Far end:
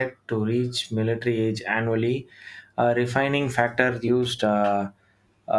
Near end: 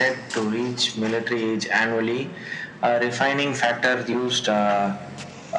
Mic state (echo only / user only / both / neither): echo only